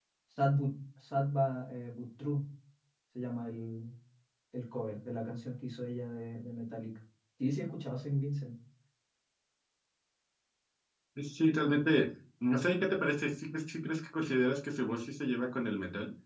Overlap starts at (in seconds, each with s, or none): none